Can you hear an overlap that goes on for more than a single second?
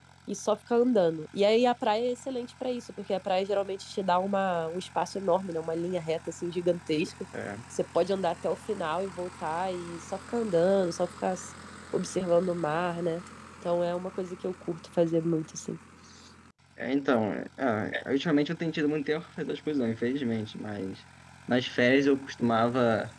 No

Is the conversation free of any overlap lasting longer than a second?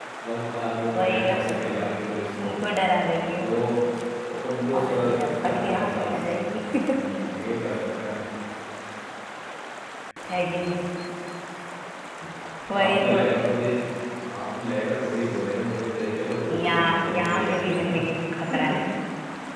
No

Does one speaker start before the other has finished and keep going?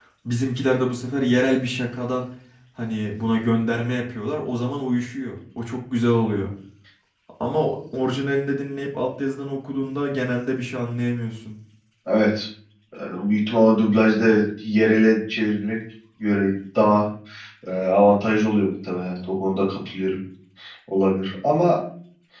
No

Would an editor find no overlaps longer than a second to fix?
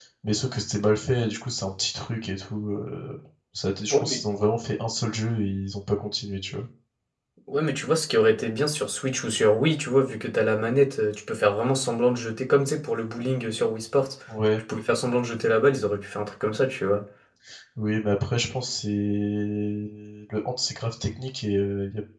Yes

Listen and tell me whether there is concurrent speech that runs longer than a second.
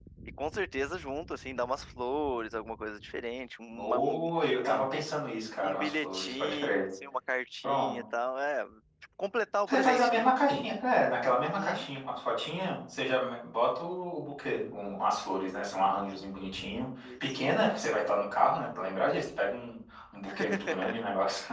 Yes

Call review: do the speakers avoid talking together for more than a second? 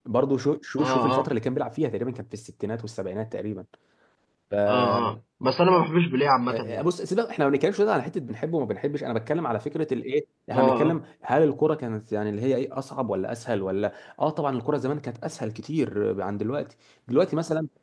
Yes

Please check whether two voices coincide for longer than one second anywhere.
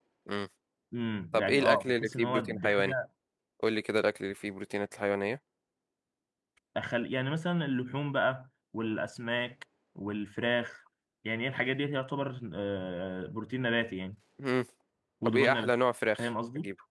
Yes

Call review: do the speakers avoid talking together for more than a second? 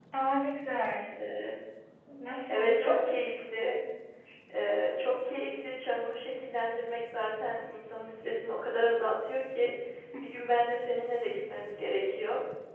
Yes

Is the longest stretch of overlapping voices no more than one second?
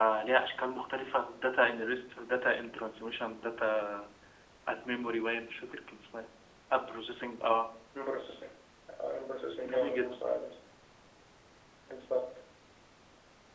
Yes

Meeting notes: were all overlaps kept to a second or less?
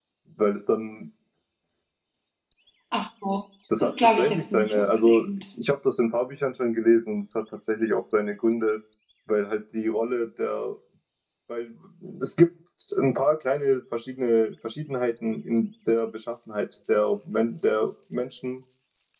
No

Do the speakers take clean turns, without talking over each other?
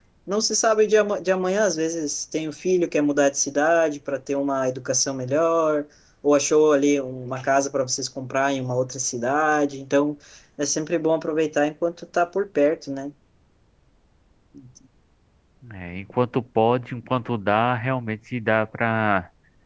Yes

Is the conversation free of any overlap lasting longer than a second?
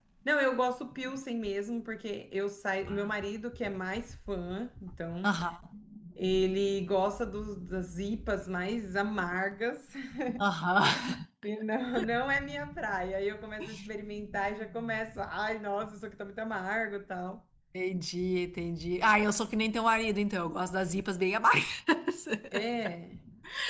Yes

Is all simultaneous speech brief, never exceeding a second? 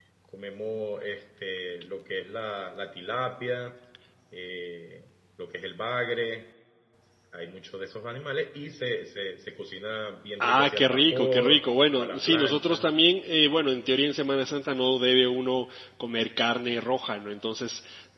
No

